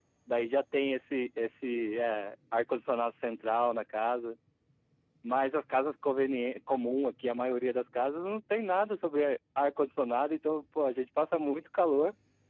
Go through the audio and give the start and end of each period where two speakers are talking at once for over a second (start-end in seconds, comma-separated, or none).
none